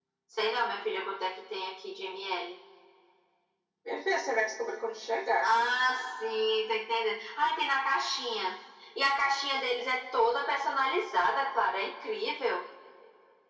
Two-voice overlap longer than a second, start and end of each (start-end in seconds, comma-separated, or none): none